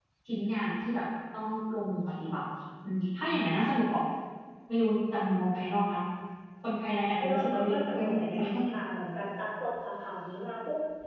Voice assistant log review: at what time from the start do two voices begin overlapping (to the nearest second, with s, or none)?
7 s